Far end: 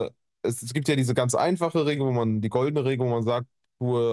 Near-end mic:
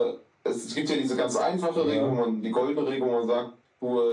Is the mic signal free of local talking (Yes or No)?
No